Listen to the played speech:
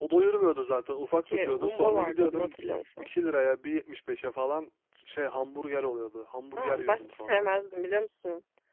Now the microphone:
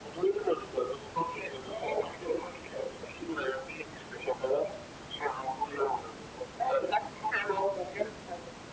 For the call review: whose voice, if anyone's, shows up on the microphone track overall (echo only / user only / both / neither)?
echo only